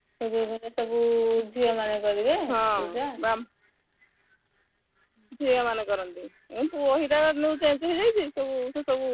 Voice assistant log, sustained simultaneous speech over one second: none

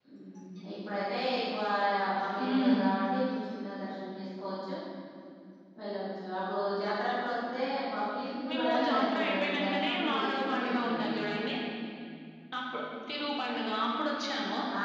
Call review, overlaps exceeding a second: present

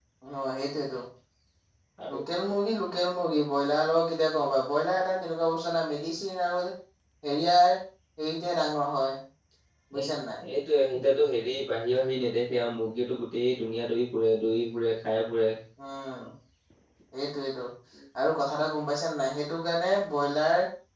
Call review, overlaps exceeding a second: none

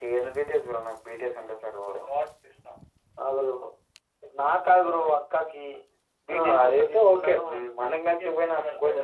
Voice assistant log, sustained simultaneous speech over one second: present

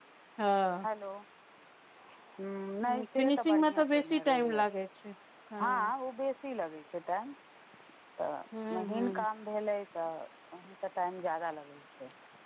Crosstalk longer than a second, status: present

